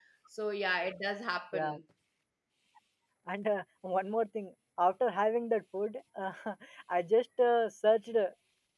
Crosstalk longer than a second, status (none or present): none